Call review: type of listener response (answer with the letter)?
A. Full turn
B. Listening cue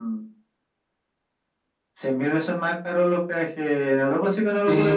A